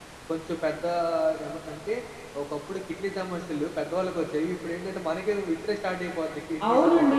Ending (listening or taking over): taking over